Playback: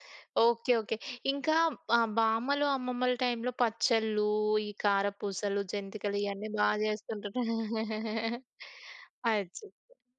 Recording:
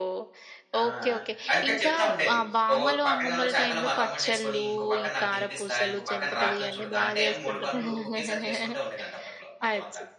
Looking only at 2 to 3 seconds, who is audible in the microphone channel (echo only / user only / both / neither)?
both